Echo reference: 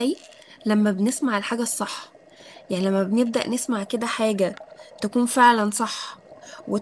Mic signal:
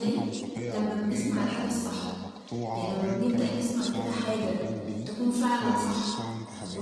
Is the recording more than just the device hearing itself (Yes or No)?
Yes